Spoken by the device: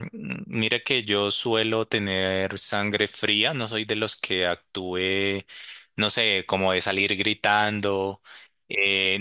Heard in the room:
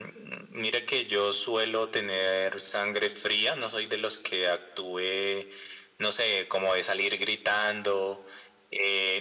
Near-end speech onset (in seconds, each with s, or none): none